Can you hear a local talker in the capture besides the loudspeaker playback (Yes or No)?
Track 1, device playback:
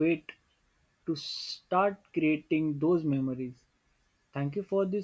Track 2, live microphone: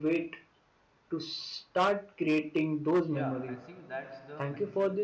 Yes